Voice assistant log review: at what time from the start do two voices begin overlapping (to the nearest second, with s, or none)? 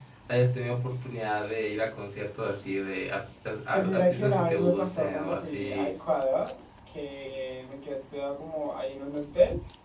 4 s